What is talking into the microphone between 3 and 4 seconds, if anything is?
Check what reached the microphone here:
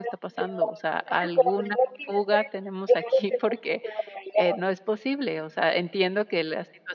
both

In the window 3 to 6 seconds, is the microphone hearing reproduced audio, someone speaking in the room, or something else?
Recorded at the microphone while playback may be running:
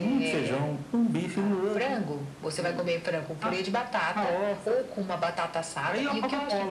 echo only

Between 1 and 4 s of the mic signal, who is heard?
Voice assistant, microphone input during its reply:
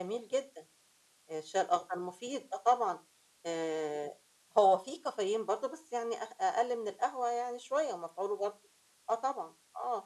echo only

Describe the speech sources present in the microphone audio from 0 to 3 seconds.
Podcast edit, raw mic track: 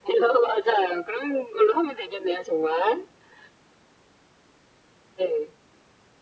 echo only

